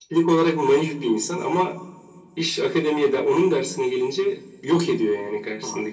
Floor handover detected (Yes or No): Yes